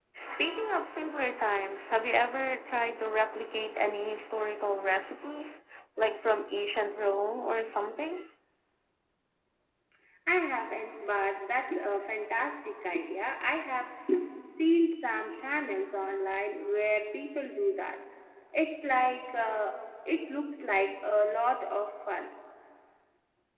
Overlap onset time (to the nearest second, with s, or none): none